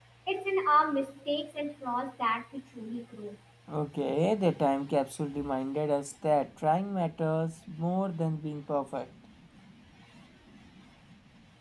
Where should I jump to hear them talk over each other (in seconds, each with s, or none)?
none